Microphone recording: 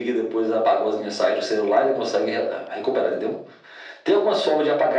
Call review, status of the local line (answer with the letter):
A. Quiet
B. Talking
A